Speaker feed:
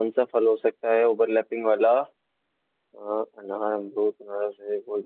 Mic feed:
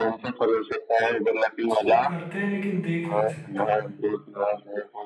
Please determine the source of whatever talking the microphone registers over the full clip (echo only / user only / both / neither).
both